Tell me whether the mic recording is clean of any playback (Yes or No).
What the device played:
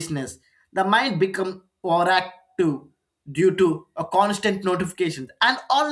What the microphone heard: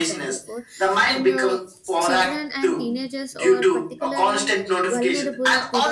No